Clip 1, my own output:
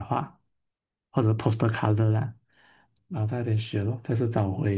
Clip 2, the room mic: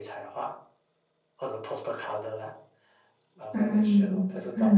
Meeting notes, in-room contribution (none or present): present